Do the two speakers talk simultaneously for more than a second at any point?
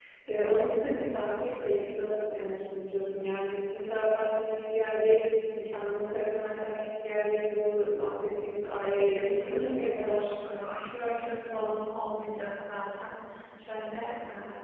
Yes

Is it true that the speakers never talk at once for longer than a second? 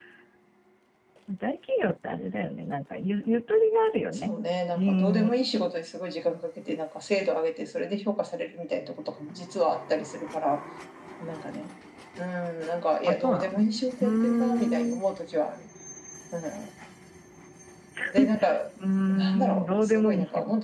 No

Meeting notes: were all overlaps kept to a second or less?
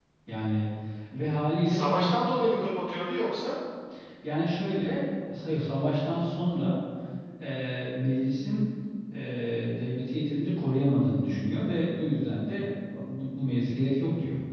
Yes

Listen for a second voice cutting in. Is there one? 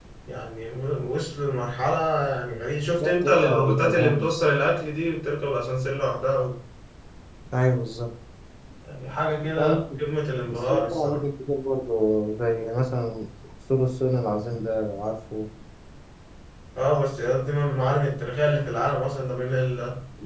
Yes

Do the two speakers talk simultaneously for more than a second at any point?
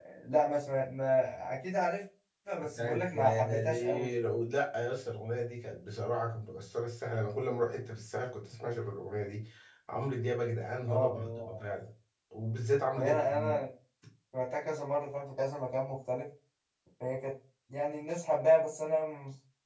Yes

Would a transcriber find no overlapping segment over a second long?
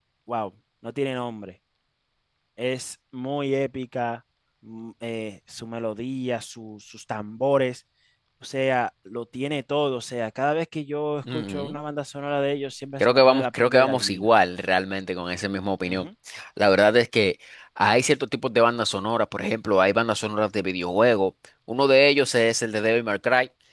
No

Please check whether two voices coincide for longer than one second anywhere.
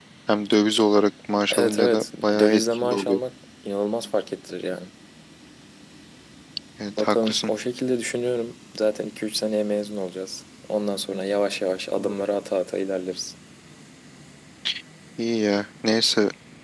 Yes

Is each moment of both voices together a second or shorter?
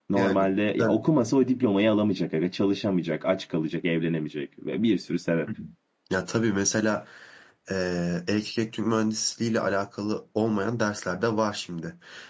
Yes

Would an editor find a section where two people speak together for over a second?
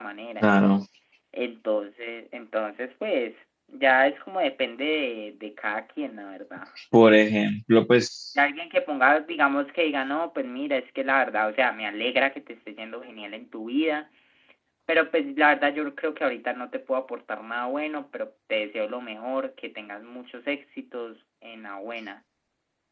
No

